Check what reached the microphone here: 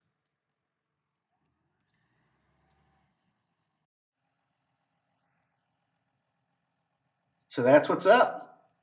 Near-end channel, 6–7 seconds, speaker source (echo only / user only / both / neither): neither